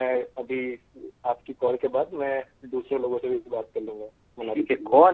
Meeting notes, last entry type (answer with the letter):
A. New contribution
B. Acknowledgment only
A